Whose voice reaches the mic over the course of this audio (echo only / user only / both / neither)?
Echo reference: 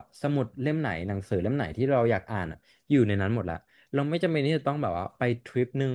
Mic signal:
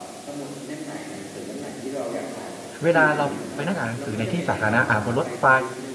both